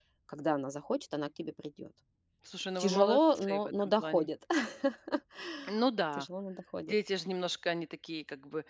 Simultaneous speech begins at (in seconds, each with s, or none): 2.8 s